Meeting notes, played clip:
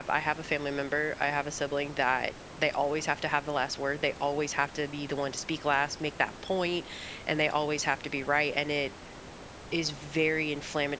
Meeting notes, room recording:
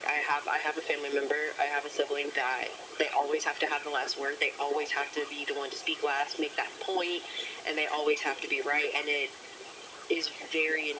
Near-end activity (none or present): none